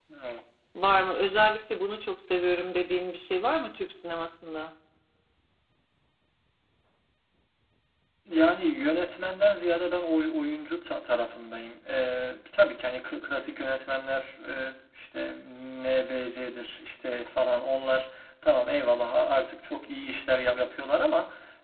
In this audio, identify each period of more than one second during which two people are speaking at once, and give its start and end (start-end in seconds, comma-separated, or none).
none